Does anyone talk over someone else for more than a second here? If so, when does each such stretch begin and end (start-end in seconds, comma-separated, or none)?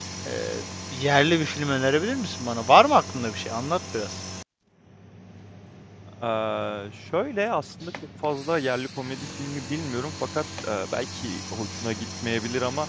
none